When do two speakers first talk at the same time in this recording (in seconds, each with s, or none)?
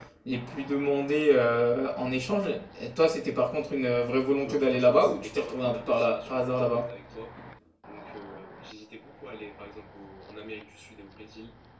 4.4 s